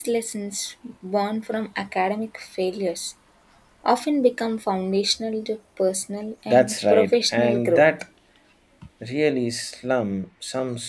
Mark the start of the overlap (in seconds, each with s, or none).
6.5 s